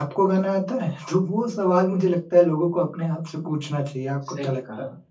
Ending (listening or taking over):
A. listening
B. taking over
B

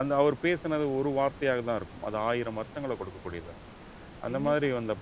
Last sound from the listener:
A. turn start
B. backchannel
A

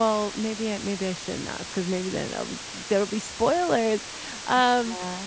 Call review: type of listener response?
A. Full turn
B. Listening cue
B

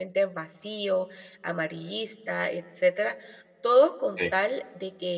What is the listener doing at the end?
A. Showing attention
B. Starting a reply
A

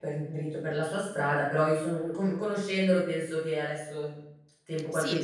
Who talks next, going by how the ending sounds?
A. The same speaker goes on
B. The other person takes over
B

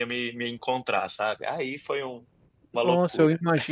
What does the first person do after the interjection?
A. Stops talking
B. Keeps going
A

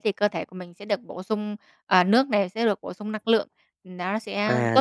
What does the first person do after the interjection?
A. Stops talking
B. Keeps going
A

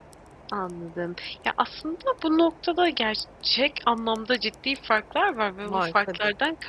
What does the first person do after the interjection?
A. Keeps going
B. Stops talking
A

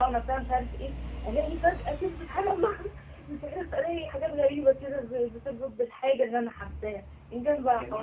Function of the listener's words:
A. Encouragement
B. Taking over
B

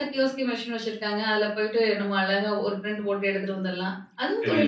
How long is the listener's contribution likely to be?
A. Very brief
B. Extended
B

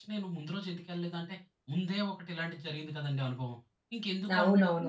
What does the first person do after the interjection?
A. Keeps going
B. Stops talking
B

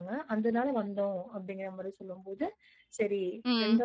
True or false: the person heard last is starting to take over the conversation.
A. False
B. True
A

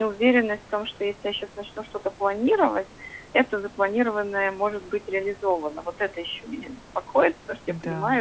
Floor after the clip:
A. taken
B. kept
B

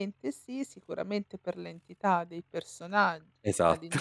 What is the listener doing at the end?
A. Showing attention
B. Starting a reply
A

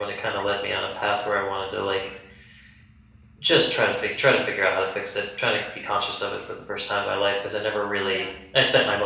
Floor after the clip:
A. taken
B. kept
B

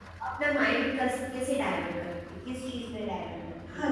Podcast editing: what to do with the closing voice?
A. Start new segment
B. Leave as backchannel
A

